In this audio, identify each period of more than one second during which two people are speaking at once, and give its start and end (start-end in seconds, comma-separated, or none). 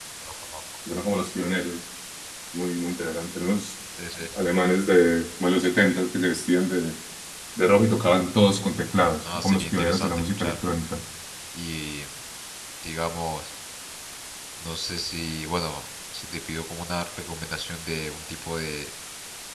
9.3-10.6